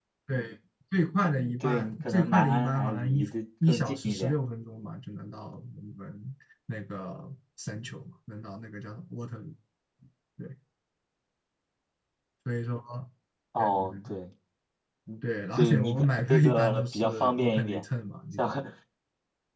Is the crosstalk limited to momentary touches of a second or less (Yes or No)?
No